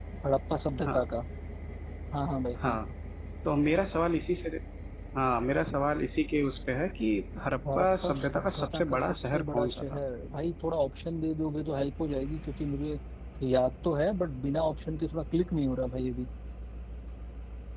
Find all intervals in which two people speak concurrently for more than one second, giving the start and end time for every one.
7.8-10.0

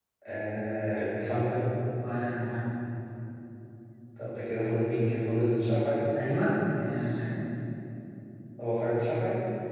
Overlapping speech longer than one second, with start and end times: none

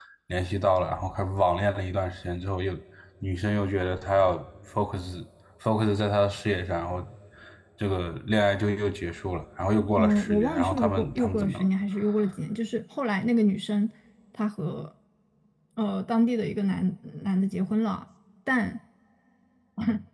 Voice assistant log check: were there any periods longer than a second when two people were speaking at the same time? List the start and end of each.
10.0-11.7

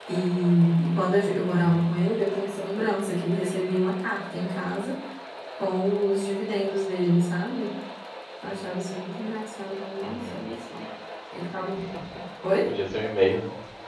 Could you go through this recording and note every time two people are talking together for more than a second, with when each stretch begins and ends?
none

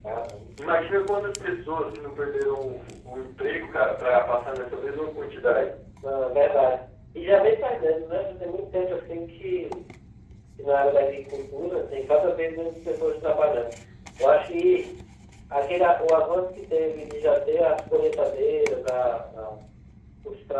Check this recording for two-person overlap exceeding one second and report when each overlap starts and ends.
none

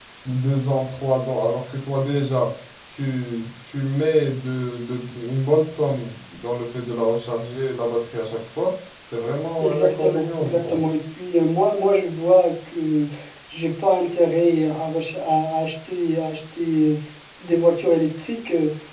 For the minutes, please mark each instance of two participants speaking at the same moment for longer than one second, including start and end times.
9.6-10.8

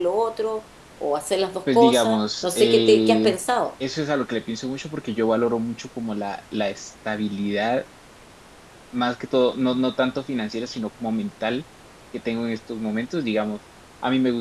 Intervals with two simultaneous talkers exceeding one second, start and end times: 1.7-3.4

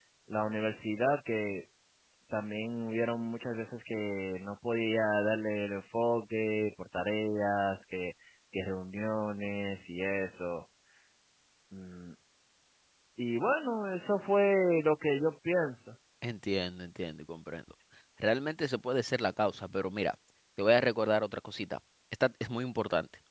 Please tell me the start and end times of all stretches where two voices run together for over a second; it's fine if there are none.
none

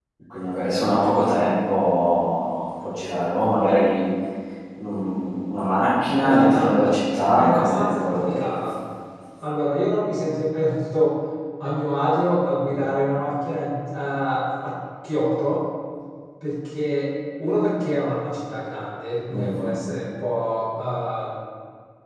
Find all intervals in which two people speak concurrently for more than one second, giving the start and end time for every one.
7.3-8.6

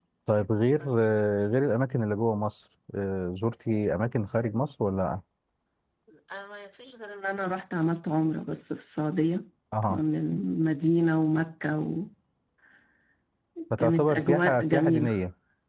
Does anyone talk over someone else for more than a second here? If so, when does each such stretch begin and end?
13.8-15.2

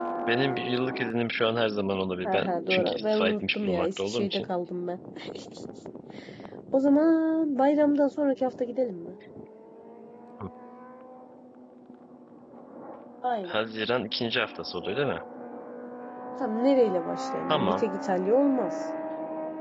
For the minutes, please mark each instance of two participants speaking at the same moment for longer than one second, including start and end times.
2.2-4.5

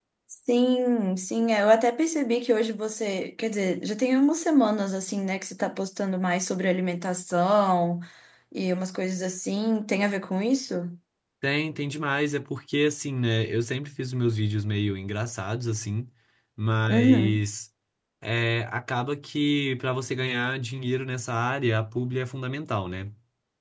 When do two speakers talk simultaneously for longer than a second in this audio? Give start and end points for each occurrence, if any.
none

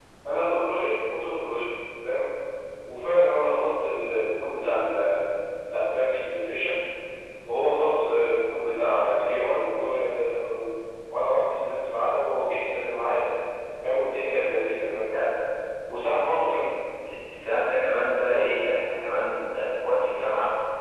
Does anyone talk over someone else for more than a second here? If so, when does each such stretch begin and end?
none

